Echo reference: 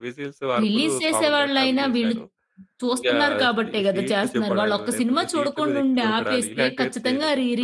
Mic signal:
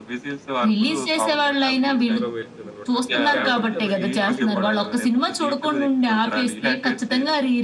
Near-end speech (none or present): present